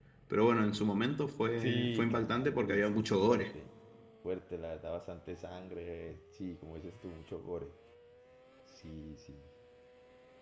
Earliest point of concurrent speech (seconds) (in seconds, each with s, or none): 1.6 s